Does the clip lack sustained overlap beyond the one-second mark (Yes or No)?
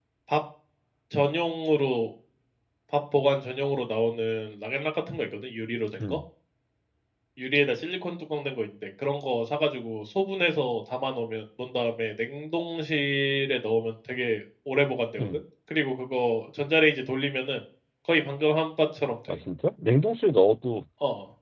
Yes